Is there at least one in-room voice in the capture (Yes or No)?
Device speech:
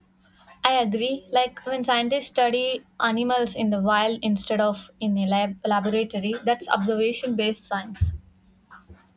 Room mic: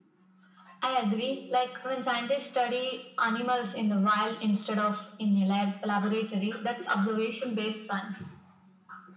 No